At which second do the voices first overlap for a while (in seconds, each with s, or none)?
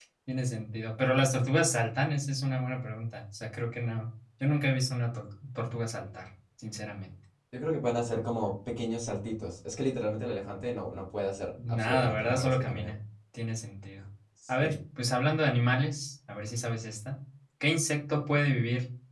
11.7 s